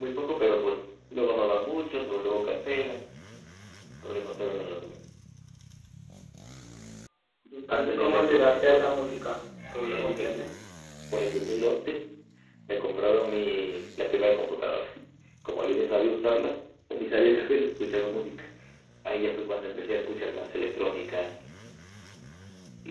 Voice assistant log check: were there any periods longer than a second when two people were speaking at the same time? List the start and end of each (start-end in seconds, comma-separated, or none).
7.7-9.0